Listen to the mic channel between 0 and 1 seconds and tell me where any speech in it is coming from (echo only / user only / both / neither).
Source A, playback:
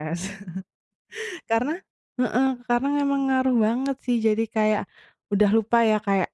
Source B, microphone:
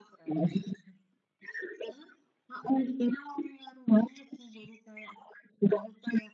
echo only